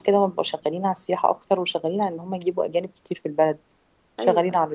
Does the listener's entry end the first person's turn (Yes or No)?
No